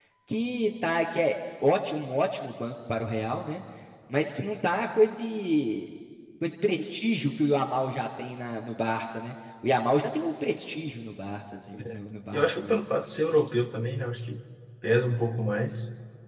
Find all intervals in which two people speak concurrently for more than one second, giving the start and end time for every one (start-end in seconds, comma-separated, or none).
none